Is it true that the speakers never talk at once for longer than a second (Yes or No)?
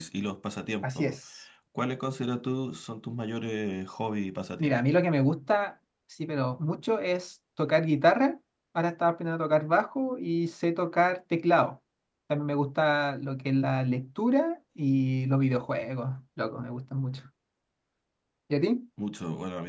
Yes